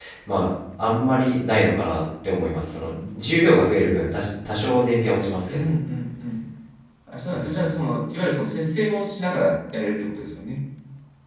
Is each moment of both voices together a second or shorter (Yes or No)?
Yes